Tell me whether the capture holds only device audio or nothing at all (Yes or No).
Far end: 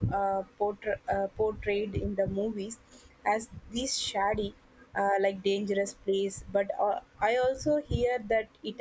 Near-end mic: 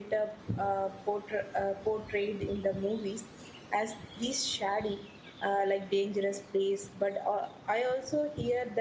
Yes